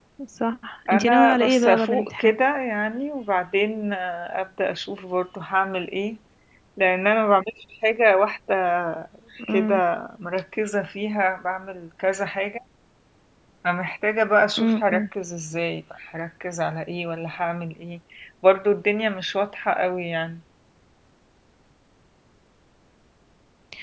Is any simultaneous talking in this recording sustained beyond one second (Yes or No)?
Yes